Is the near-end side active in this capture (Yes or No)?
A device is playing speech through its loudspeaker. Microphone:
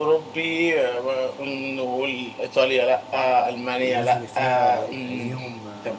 Yes